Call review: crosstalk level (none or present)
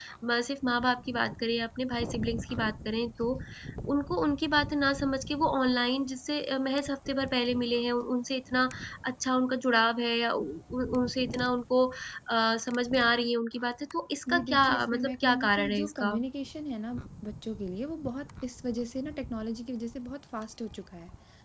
present